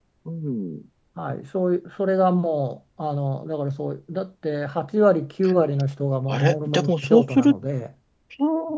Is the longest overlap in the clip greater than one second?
Yes, from 6.3 s

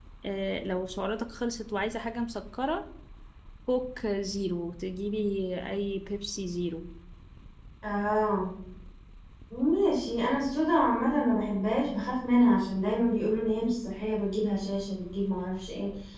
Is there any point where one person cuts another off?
No

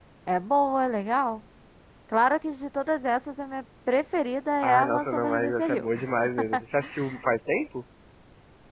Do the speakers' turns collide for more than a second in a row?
Yes, from 4.6 s

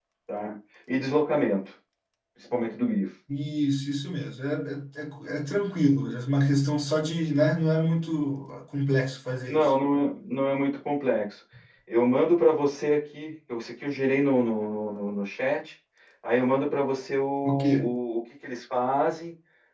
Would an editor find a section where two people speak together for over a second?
No

